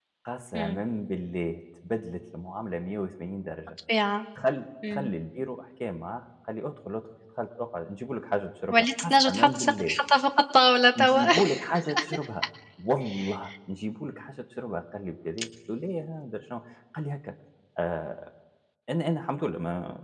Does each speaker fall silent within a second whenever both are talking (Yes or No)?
No